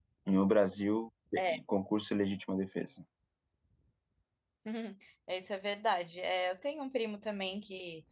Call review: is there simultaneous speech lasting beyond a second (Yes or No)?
No